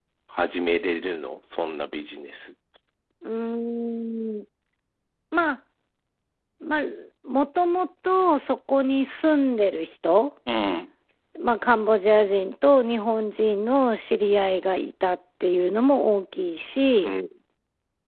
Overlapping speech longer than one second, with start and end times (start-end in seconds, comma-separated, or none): none